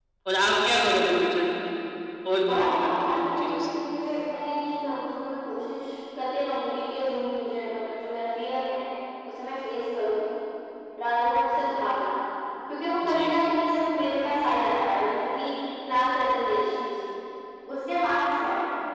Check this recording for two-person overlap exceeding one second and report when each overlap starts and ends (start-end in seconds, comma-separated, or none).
2.5-3.8